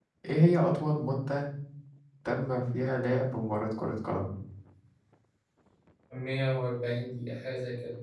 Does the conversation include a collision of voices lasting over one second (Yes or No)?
No